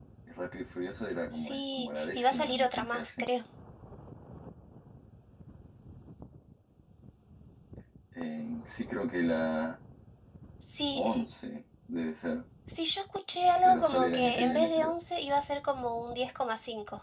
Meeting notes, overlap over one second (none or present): present